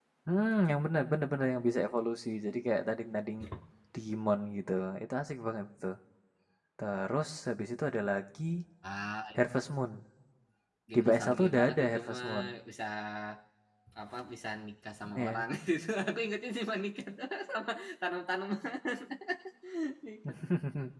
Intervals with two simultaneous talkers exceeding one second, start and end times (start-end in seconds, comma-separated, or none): 10.9-12.3